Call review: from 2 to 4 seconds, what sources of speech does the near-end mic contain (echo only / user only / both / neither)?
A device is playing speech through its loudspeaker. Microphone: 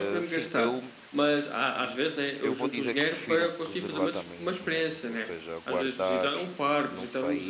both